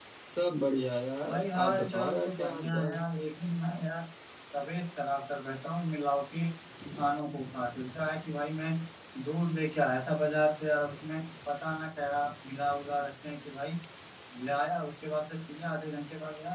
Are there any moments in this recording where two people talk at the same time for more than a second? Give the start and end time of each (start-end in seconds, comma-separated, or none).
1.3-3.1